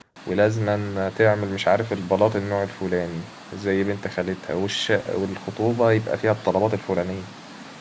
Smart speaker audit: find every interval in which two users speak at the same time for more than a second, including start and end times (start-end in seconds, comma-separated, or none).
none